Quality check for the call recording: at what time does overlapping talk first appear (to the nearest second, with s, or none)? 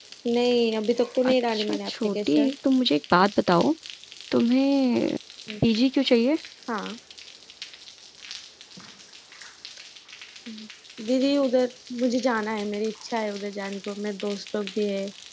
1 s